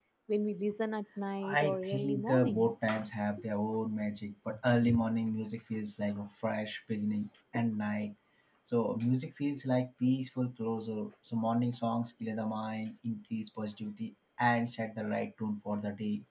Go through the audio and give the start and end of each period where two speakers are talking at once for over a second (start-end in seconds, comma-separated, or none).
1.4-2.7